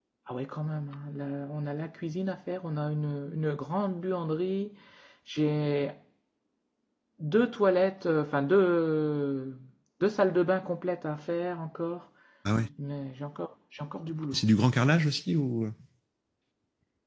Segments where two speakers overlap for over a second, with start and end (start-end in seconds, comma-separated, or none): none